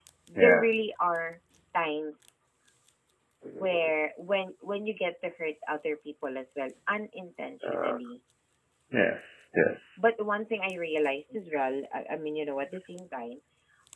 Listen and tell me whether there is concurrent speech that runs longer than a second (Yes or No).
No